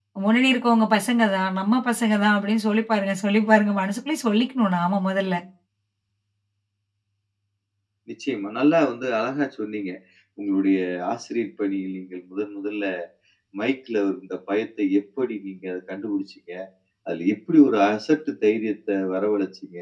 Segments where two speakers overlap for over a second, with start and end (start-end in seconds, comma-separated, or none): none